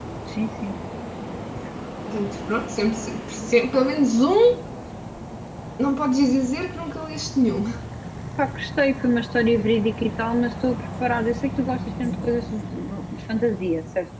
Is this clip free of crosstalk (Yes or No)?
Yes